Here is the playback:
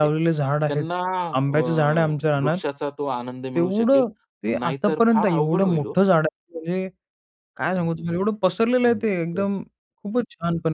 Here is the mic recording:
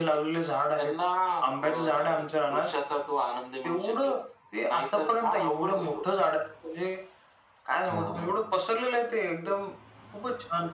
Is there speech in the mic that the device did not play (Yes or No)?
Yes